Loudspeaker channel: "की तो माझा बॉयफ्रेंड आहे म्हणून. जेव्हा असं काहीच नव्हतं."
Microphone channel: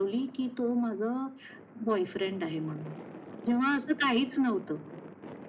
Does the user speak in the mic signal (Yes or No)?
No